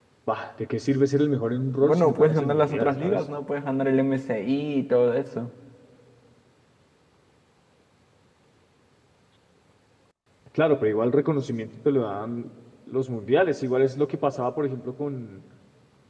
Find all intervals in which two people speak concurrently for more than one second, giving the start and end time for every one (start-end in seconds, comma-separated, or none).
1.8-3.2